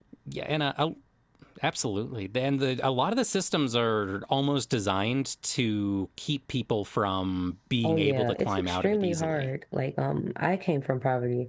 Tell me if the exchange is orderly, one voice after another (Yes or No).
No